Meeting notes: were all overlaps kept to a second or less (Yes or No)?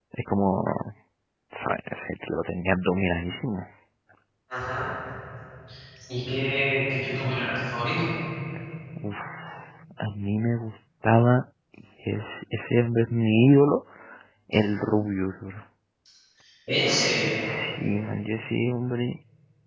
Yes